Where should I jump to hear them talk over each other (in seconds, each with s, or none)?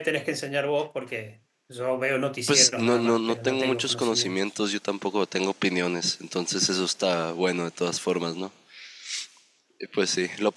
2.5 s